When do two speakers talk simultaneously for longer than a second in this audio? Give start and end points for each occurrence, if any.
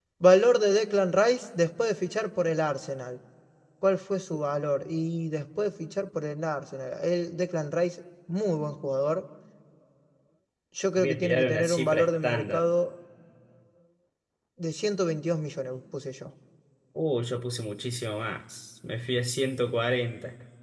11.0-12.6

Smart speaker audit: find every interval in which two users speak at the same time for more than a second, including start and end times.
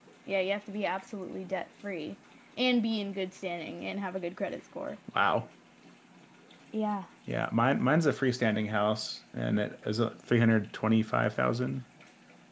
none

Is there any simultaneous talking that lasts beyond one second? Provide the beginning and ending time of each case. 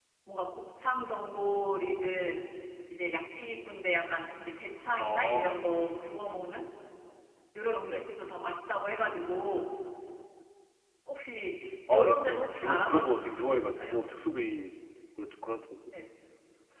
11.9-14.0

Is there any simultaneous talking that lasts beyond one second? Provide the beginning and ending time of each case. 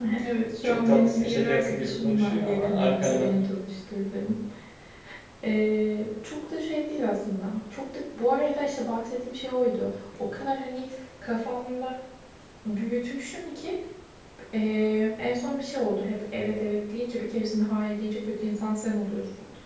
0.6-3.3

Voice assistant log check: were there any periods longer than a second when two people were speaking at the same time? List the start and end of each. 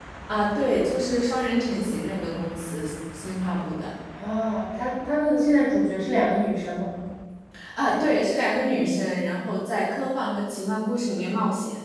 none

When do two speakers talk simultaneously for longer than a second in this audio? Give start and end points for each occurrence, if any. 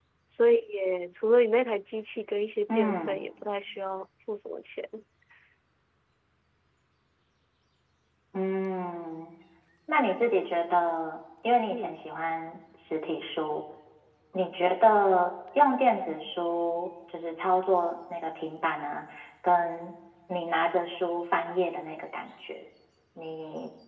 none

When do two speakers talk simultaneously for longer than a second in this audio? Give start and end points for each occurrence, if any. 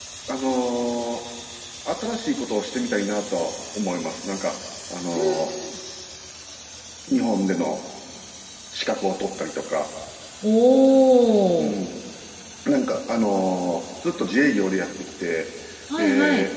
none

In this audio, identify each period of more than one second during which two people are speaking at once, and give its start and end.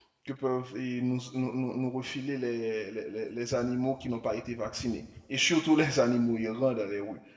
none

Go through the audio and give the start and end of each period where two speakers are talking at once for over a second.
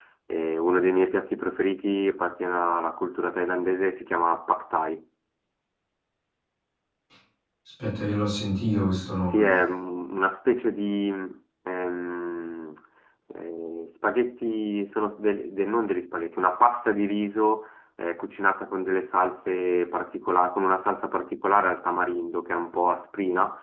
none

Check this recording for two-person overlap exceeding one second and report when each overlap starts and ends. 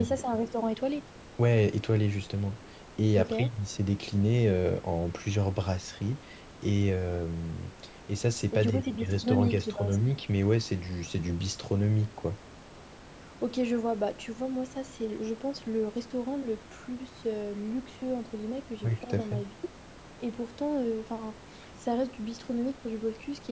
8.5-9.9

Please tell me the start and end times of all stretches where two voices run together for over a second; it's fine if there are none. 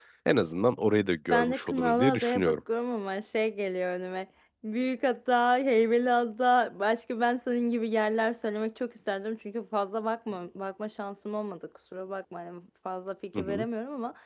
1.3-2.6

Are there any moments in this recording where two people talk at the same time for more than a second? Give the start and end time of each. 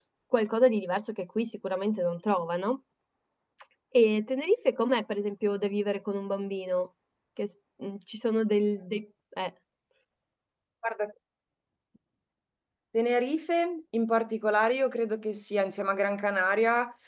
none

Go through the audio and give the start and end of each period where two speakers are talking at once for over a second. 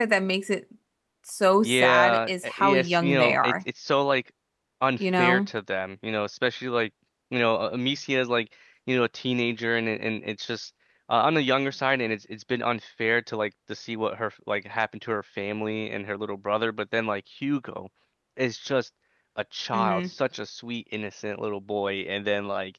1.6-3.5

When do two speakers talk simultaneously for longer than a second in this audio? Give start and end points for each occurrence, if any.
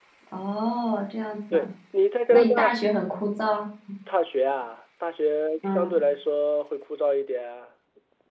none

